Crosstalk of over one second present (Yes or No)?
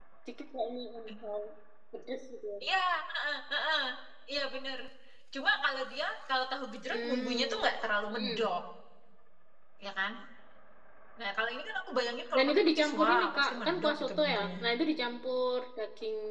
Yes